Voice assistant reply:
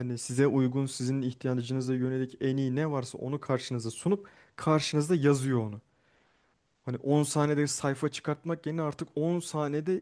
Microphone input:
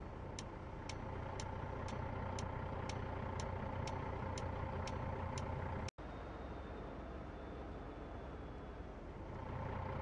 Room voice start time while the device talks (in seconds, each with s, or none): none